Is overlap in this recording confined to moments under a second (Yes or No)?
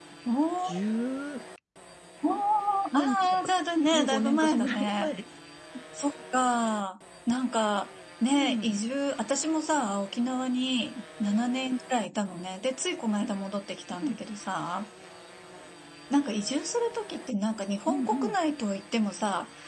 No